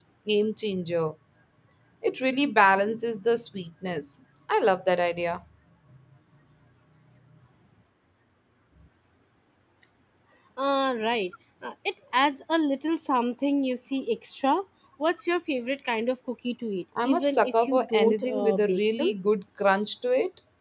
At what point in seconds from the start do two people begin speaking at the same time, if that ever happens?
17.0 s

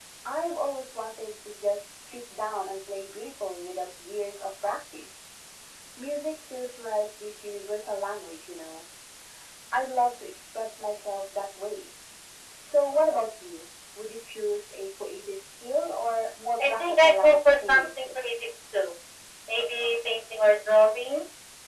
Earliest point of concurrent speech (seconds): 16.6 s

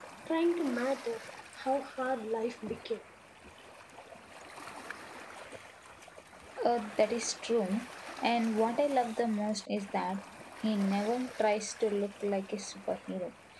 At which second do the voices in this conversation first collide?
none

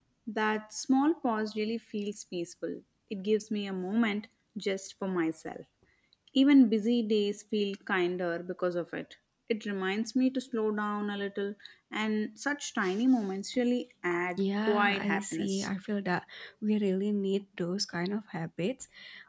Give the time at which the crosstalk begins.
14.4 s

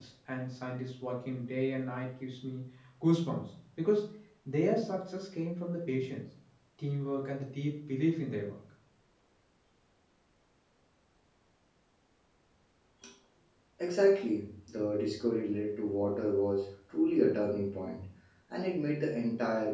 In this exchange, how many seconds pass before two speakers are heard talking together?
none

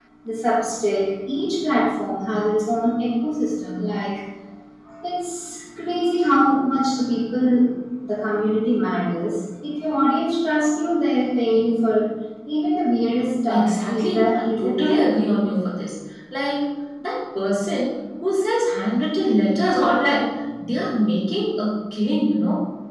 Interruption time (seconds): 13.5 s

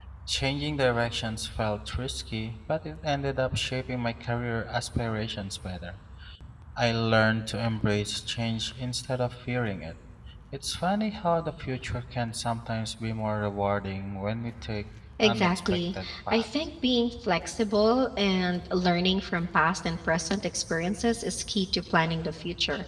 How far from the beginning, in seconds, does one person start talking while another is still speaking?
15.2 s

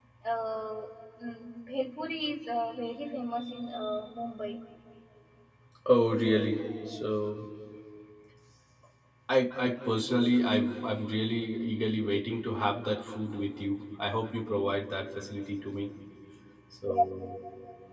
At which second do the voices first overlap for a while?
none

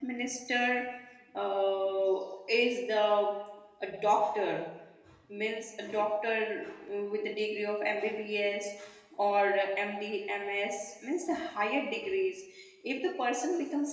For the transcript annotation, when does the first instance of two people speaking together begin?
none

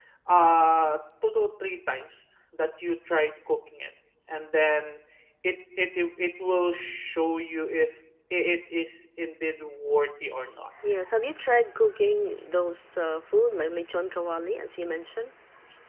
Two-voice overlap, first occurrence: none

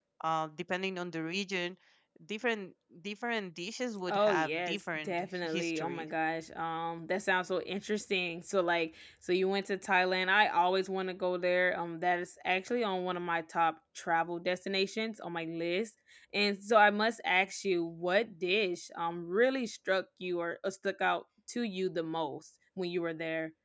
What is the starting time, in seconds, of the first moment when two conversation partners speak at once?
4.1 s

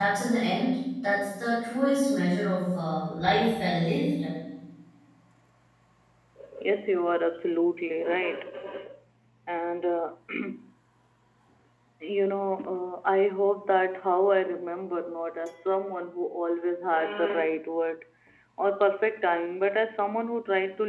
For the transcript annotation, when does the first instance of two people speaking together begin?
none

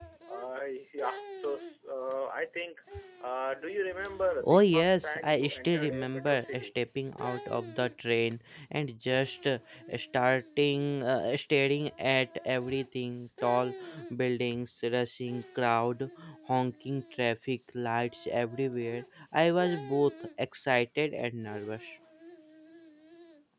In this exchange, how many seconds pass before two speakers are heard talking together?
4.4 s

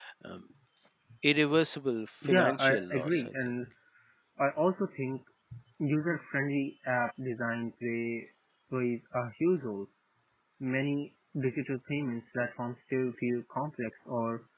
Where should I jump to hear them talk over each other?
2.2 s

